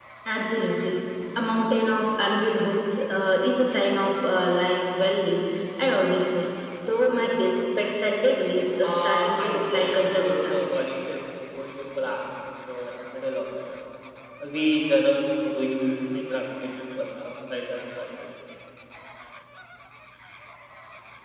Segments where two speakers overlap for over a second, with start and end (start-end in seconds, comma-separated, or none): 8.8-10.6